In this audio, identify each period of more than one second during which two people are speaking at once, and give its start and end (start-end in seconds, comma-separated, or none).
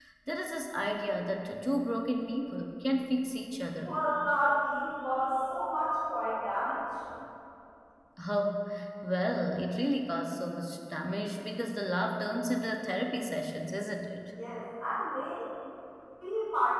none